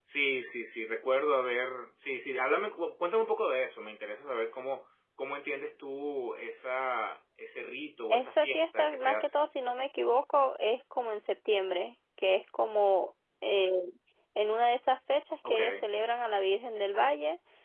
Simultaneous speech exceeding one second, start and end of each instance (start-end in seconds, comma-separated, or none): 8.1-9.4